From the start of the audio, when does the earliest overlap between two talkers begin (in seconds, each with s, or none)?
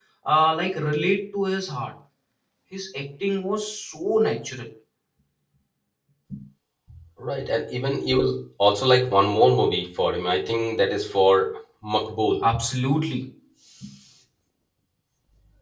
none